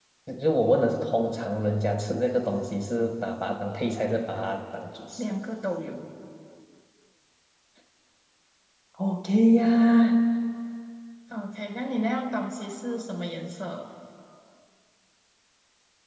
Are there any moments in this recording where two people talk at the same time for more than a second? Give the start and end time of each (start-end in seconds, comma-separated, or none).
none